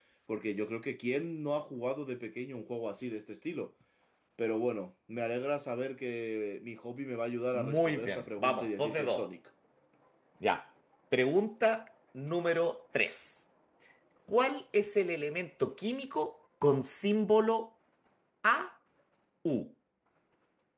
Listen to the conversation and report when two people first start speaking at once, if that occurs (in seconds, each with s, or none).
7.5 s